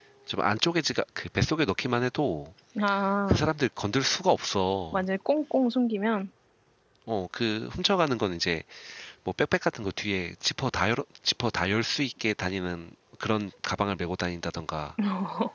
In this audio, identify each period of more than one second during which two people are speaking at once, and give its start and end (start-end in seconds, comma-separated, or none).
none